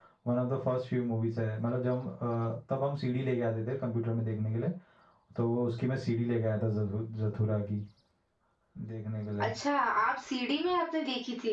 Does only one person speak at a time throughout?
Yes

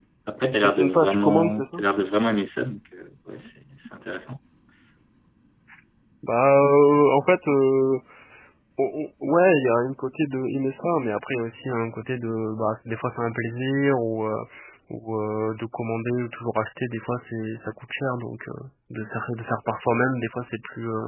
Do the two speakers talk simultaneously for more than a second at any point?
Yes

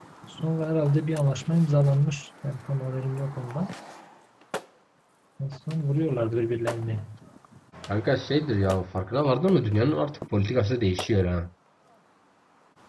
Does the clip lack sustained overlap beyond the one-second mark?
Yes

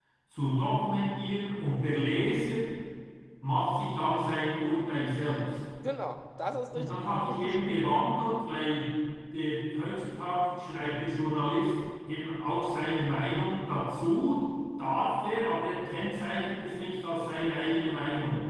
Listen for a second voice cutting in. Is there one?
Yes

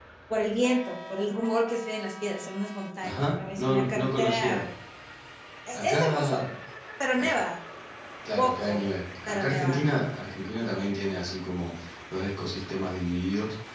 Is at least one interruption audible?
Yes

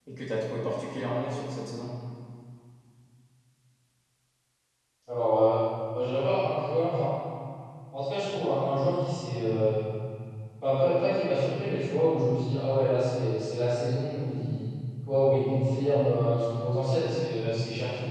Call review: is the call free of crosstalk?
Yes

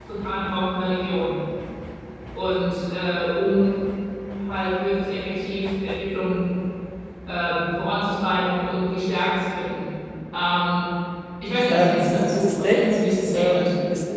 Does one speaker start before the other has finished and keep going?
Yes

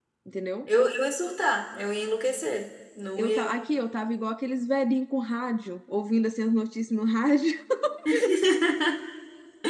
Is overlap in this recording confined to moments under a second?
Yes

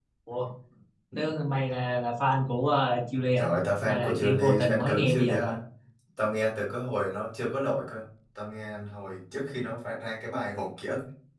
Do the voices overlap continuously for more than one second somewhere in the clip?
Yes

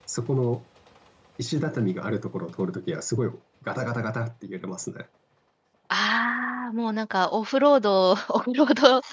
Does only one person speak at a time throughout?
Yes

